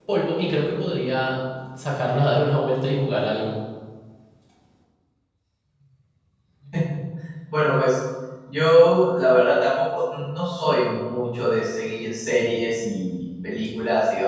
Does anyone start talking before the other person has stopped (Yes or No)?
No